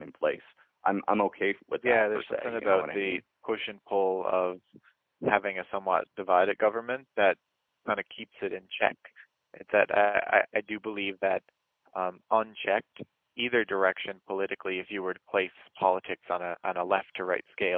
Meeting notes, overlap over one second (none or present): present